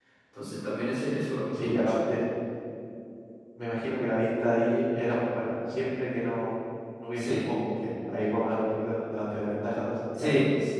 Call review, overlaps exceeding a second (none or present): none